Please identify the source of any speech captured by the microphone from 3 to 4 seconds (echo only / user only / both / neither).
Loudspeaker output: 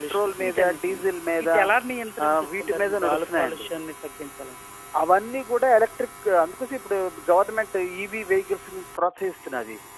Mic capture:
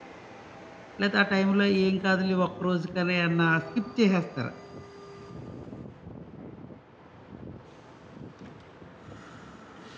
user only